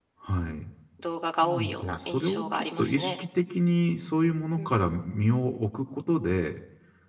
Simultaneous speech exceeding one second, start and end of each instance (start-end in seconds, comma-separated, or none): 1.4-3.1